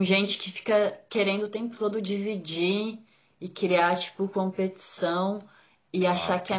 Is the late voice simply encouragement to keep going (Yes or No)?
Yes